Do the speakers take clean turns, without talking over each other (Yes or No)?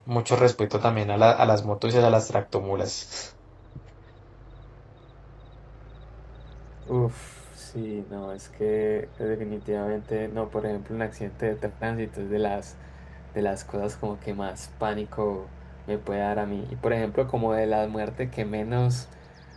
Yes